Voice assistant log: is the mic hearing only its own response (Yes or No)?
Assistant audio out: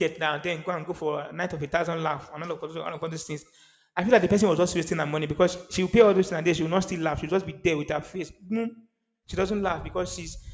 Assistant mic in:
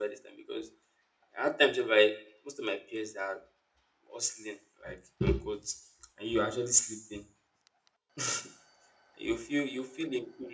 No